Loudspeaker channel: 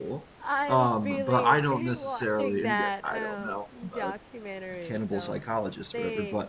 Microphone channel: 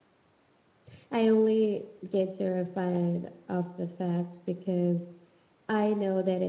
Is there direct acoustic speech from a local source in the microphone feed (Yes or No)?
Yes